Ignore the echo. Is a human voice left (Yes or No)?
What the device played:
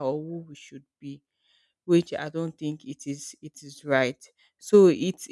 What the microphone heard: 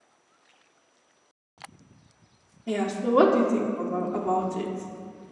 Yes